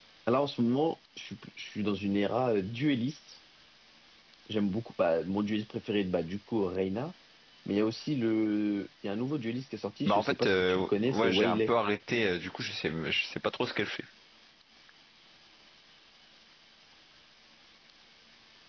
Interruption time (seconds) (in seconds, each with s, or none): 10.0 s